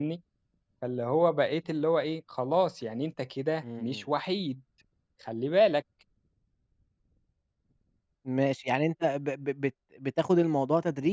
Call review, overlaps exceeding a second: none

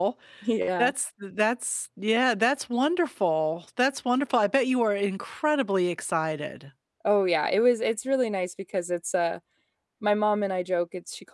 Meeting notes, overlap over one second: none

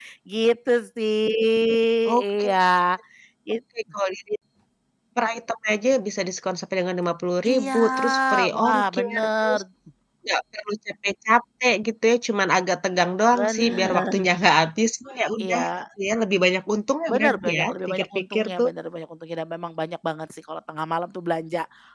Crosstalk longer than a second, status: present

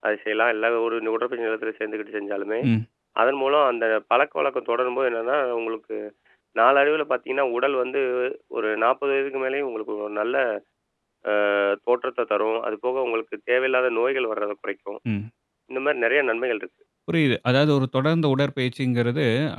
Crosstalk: none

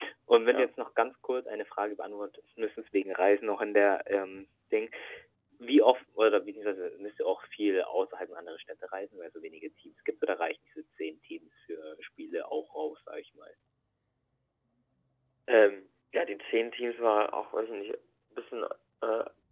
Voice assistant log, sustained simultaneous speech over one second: none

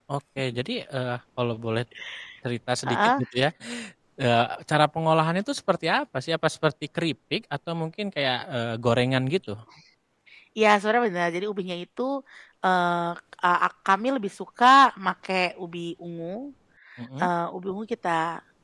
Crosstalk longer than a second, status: none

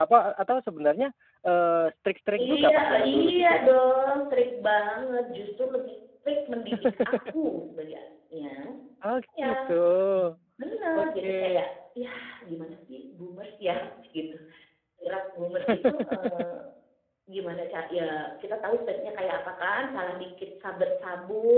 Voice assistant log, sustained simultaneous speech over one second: present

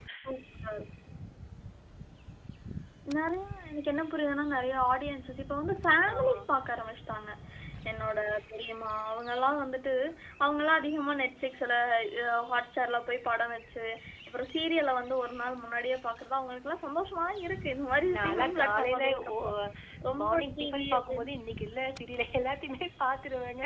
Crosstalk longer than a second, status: present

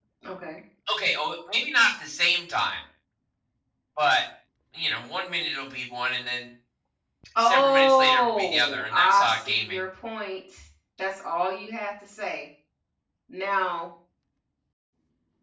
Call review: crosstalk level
present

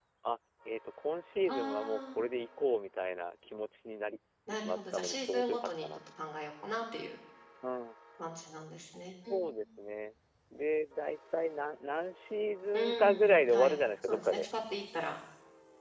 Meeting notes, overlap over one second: present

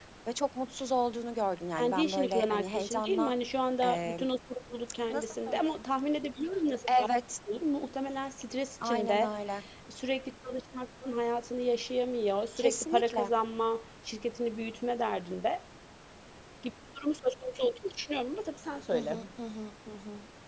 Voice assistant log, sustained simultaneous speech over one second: present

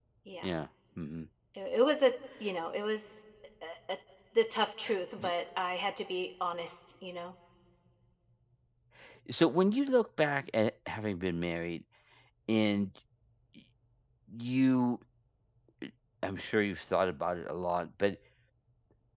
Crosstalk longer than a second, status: none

